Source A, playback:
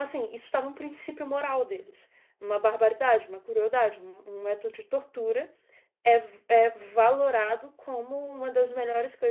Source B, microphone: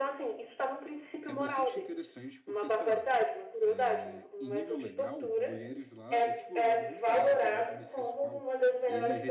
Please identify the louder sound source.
echo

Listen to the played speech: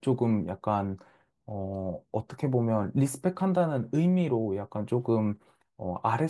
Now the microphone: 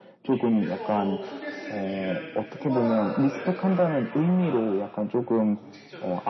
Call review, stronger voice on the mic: echo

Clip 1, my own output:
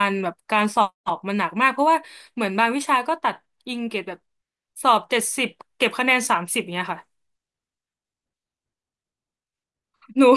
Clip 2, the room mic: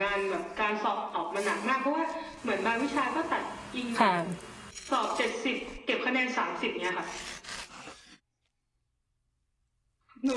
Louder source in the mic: user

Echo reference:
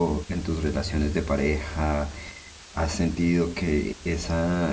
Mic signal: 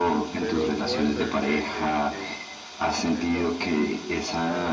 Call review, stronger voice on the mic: echo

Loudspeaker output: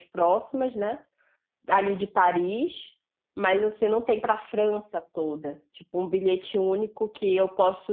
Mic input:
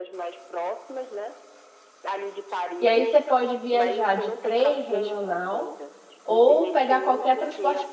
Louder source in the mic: user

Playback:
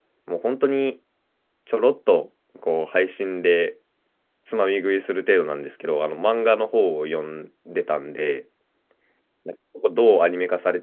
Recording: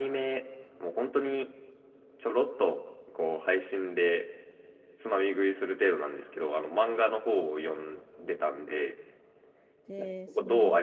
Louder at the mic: echo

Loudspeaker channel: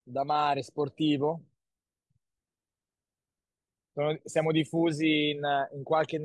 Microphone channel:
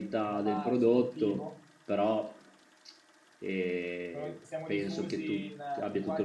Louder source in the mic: user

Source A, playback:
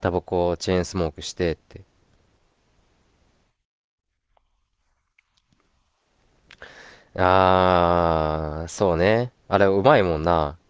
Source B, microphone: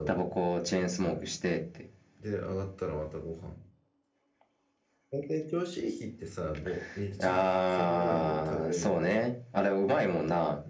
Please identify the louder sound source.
echo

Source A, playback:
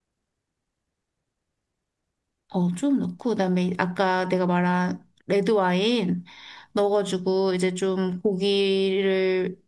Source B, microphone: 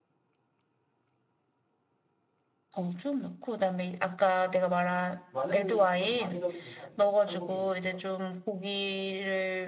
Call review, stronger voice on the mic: echo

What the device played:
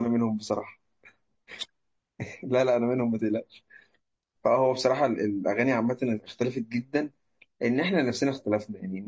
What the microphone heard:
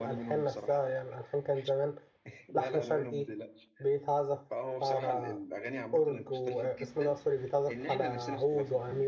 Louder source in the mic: user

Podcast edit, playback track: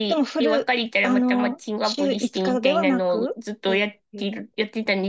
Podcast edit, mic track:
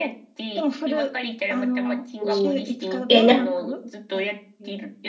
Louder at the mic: user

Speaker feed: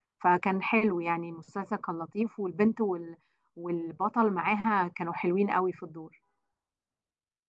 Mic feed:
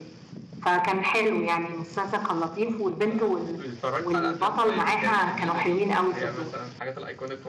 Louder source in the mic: echo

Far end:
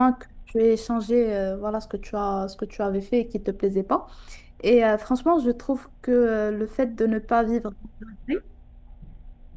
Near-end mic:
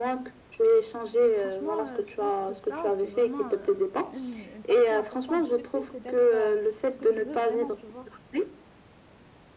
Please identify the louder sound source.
echo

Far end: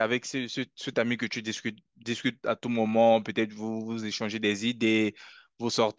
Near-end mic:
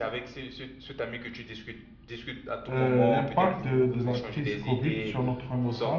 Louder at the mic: user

